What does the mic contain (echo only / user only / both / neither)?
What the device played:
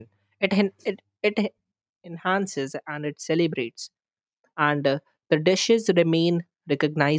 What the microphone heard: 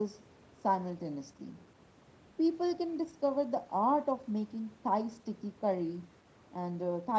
user only